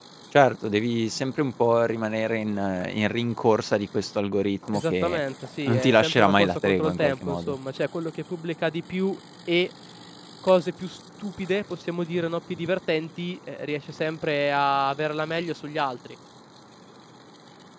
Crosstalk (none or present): present